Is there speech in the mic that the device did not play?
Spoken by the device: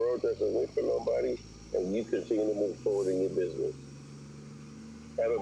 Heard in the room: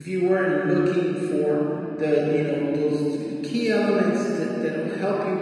Yes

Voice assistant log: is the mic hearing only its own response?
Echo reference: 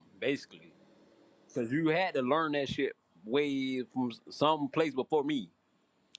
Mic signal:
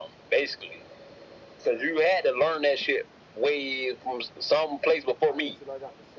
No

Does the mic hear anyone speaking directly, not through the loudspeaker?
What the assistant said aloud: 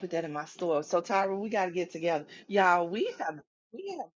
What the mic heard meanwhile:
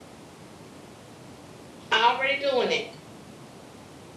Yes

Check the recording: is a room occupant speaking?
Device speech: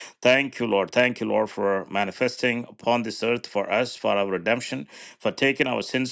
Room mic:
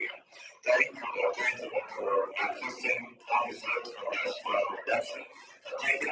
No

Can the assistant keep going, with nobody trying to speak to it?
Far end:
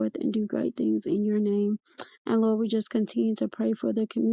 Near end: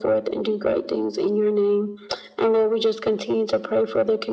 Yes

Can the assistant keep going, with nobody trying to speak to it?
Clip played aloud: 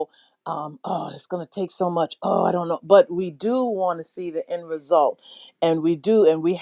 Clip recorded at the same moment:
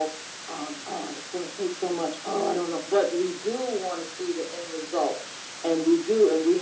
Yes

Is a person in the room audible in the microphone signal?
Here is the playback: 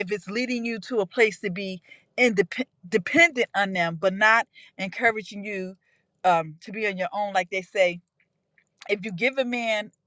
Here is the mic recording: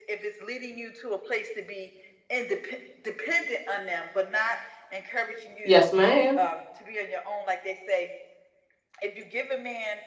Yes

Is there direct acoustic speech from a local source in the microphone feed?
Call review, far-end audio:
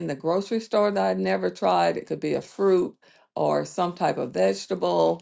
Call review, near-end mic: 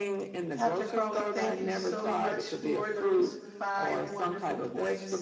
Yes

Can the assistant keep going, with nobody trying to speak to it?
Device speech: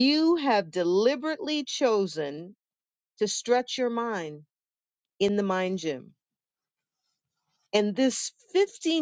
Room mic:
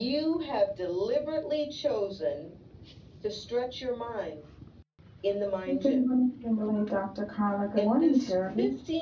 No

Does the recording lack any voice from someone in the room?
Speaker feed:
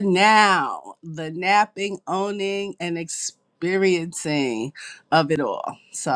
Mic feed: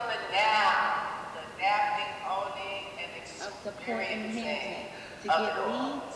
No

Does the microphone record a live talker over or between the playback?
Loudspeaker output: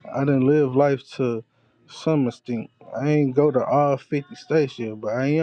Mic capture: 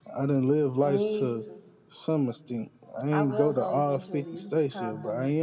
Yes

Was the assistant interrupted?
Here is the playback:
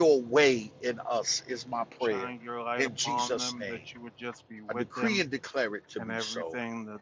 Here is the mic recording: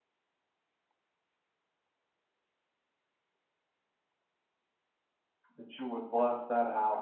Yes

